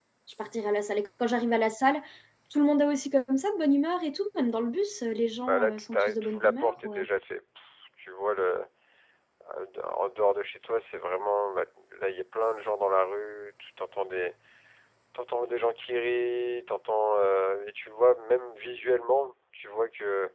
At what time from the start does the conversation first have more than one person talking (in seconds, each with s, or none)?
5.5 s